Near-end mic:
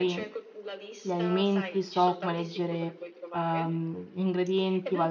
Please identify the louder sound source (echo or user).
user